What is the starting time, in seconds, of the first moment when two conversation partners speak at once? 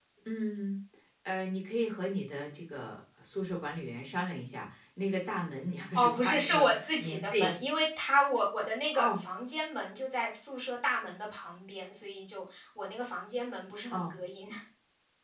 5.9 s

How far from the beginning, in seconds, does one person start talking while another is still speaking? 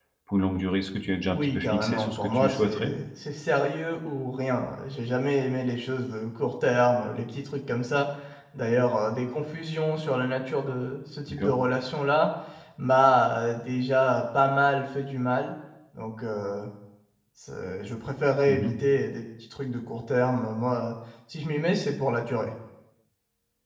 1.3 s

